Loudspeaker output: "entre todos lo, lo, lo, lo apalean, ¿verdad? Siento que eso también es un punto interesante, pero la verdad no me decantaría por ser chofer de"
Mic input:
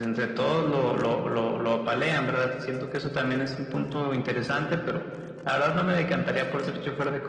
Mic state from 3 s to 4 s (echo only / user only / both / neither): echo only